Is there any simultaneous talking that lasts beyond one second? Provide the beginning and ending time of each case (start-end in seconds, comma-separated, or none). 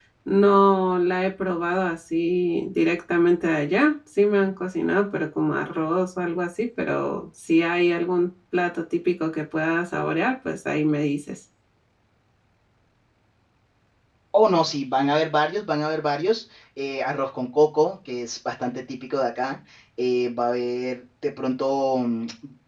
none